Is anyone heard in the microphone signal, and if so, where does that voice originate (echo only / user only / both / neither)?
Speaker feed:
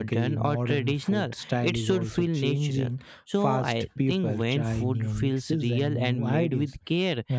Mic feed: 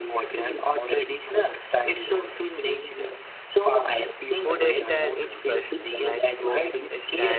both